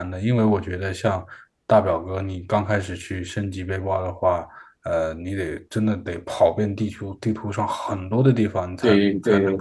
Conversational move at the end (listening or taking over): listening